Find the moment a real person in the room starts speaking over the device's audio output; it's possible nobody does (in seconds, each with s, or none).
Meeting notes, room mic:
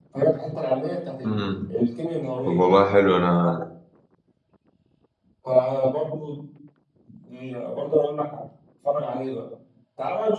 1.2 s